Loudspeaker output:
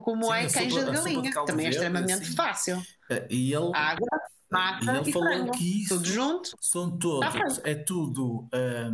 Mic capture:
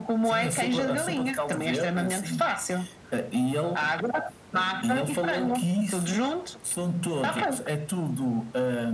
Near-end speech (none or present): none